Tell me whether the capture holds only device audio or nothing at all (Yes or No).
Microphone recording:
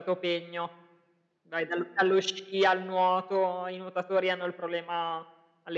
Yes